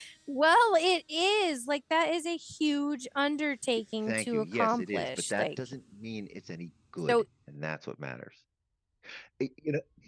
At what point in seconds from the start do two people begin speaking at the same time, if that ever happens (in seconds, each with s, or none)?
4.1 s